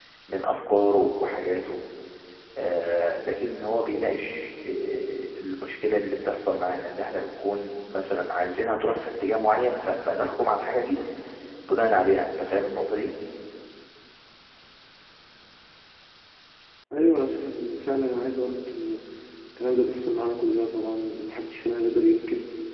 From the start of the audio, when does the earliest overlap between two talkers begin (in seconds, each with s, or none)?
none